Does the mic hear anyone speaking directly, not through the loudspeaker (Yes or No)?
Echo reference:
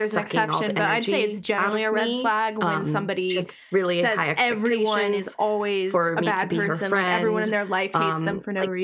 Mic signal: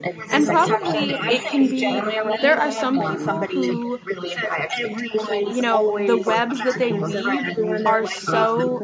Yes